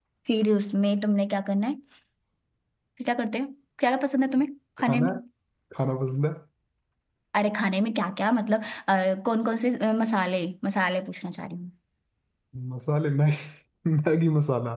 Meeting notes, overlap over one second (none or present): none